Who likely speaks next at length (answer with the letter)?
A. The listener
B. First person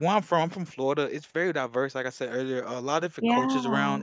B